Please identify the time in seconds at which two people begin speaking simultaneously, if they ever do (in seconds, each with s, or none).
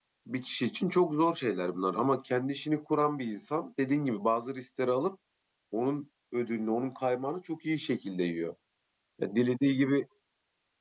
none